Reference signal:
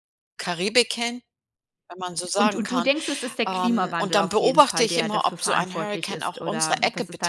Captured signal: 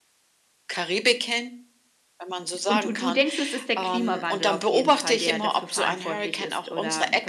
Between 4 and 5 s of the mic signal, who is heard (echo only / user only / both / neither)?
echo only